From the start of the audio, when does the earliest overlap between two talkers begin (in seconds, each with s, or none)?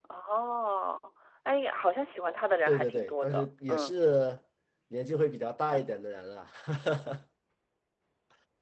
2.7 s